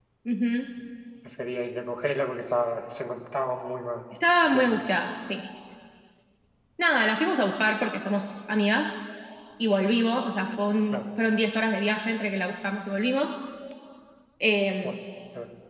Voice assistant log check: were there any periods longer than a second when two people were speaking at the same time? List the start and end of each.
none

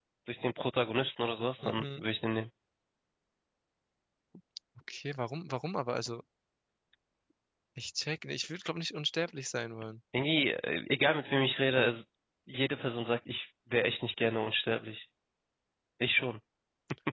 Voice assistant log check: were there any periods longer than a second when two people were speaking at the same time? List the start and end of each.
none

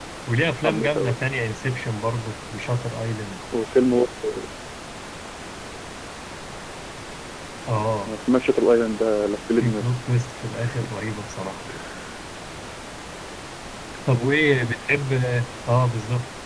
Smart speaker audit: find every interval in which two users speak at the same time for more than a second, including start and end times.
none

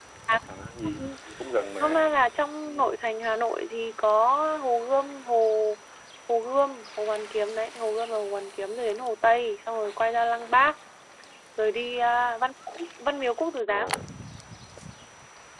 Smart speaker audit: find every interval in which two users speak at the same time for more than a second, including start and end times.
none

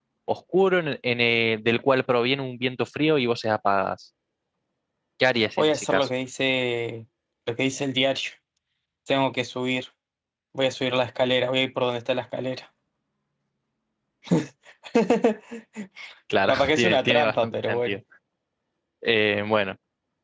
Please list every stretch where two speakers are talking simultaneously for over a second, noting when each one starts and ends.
16.5-18.0

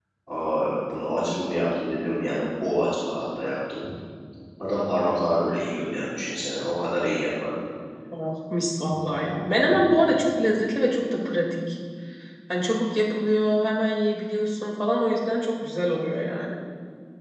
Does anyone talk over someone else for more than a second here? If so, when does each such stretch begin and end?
none

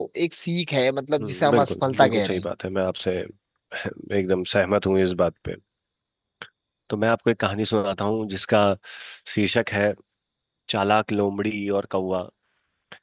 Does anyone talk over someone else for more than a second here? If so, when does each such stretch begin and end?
1.2-2.5

